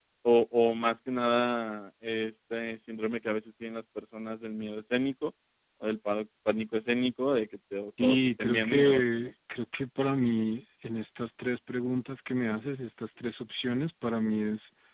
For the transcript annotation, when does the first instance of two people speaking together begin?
8.0 s

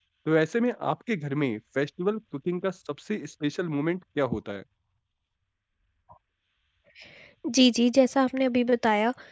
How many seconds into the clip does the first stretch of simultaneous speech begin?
none

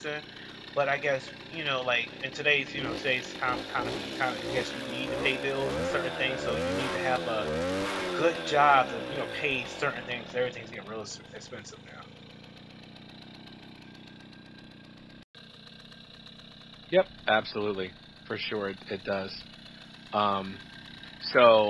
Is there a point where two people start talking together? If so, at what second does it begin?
none

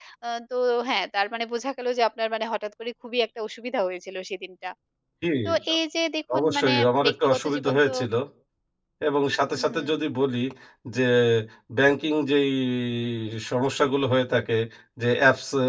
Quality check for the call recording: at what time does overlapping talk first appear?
6.4 s

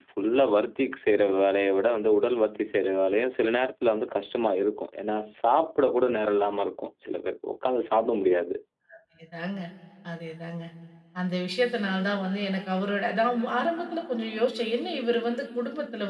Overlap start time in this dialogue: none

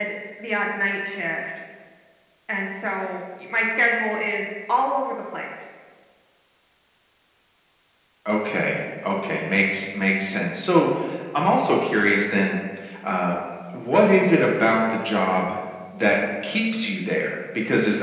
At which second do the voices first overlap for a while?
none

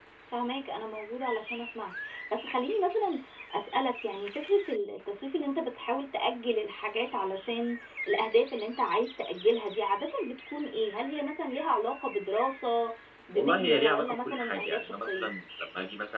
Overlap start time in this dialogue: 13.3 s

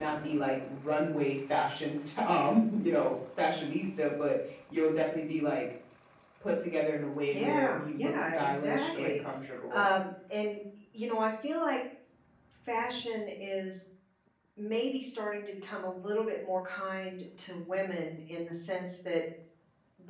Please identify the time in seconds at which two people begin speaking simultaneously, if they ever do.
7.3 s

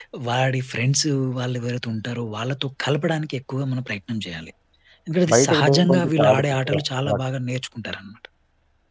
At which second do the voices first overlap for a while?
5.3 s

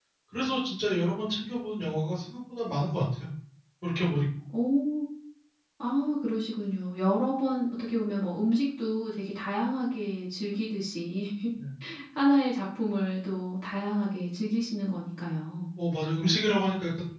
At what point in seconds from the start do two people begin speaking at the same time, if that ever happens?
none

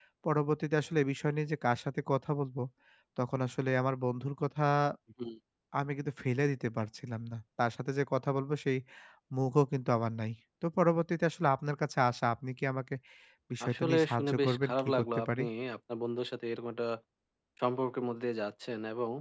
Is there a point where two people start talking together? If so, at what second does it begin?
13.7 s

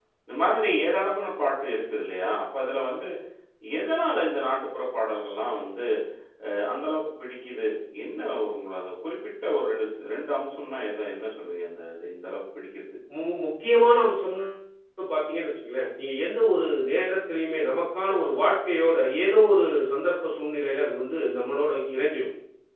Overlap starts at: none

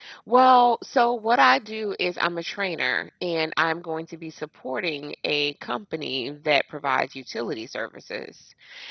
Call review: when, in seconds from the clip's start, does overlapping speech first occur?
none

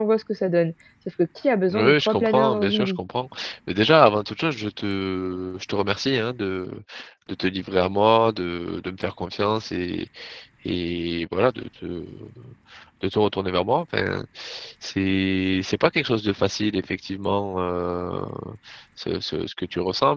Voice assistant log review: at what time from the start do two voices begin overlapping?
1.7 s

